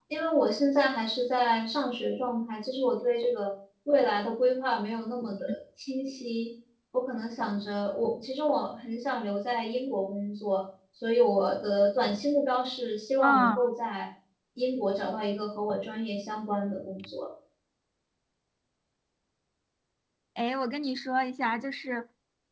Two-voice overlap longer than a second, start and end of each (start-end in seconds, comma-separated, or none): none